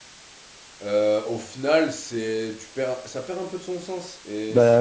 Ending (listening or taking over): listening